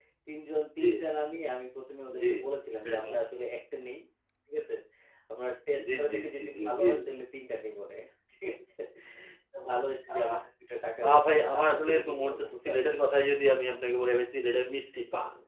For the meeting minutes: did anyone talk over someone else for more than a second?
Yes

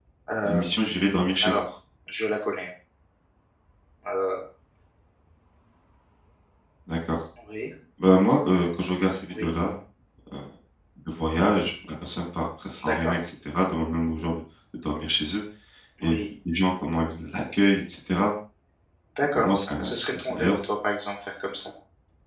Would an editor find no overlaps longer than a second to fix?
No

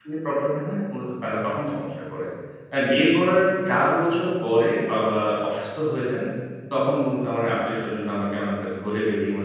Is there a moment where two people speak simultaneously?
No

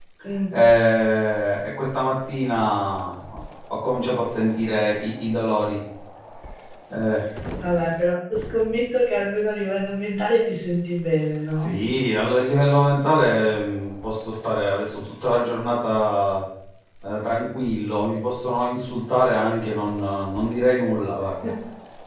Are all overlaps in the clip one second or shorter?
Yes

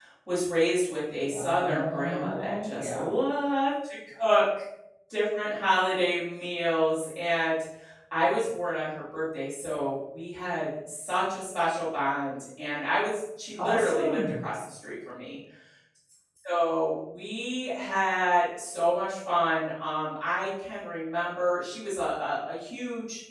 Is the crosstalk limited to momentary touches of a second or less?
No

